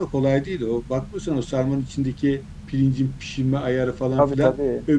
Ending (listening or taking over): listening